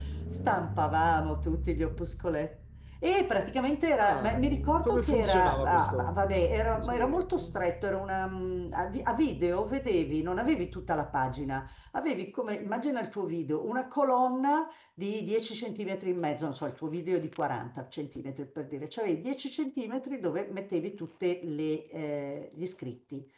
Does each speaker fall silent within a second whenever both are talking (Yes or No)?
No